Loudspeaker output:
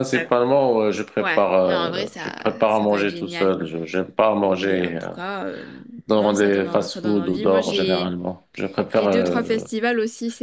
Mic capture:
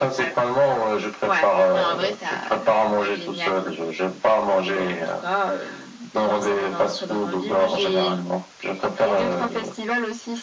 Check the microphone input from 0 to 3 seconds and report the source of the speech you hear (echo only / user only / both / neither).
echo only